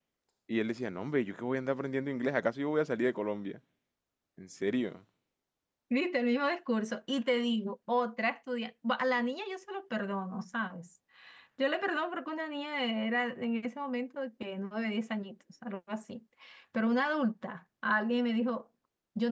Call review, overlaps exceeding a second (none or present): none